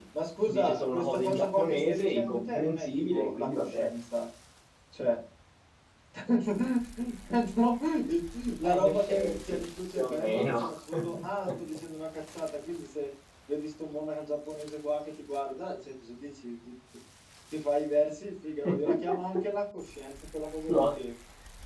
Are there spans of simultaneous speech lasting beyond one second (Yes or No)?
Yes